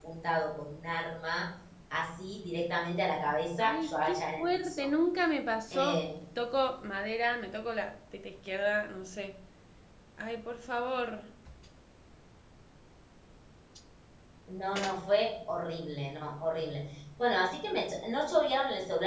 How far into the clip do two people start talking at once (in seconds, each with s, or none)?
3.6 s